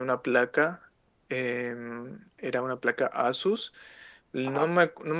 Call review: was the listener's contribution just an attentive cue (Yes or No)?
Yes